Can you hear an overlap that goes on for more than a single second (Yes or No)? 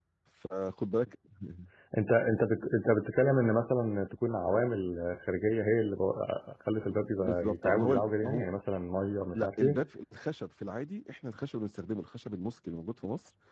Yes